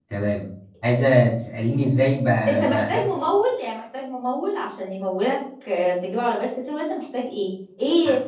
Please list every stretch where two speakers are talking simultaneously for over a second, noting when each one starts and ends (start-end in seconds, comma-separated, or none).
none